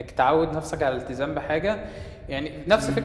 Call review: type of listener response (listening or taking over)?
listening